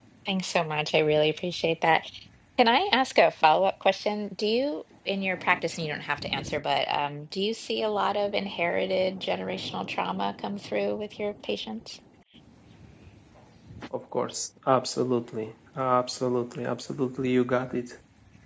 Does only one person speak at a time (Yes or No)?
Yes